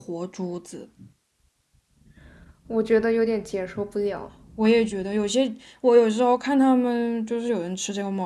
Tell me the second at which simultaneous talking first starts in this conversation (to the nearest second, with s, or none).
none